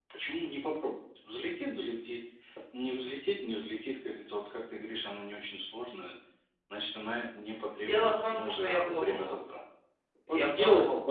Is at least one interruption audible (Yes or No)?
Yes